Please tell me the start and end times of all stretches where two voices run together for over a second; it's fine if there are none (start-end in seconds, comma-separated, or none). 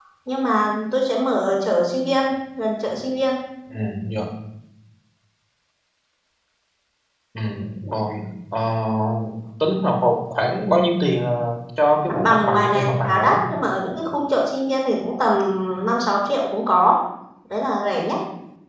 12.2-13.4